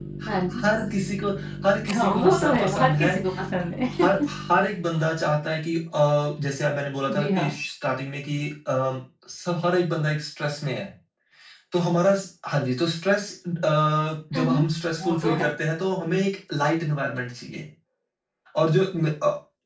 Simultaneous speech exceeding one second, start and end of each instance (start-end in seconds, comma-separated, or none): 1.9-3.1